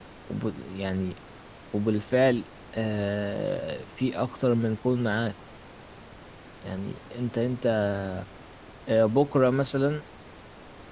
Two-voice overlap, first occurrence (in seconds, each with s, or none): none